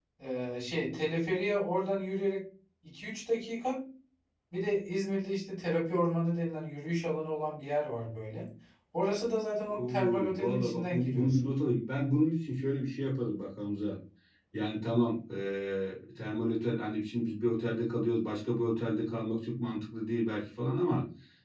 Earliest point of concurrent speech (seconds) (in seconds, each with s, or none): 9.7 s